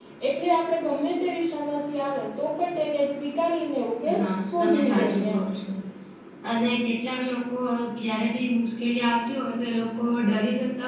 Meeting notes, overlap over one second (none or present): present